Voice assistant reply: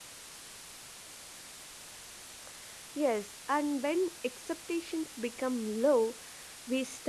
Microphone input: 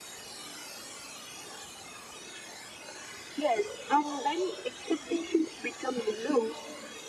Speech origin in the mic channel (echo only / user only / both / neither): echo only